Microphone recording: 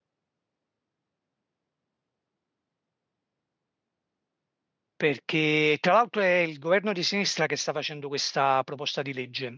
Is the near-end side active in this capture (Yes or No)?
Yes